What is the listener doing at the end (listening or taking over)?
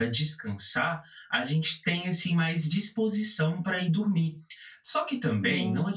listening